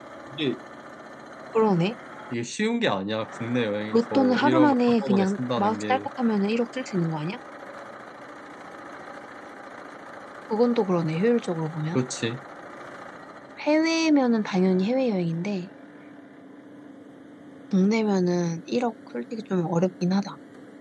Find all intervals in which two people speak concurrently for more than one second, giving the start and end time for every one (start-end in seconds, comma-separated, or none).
3.9-6.0